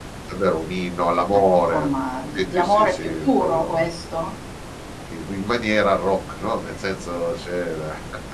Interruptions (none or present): present